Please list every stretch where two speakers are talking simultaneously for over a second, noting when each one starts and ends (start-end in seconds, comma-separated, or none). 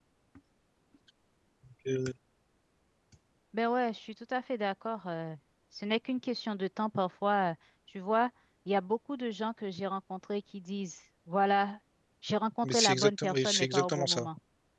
12.6-14.3